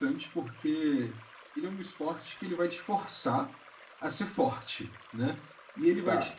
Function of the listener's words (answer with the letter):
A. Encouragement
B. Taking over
A